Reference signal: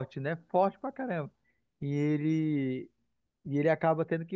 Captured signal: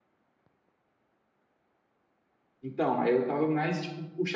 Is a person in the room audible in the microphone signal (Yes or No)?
Yes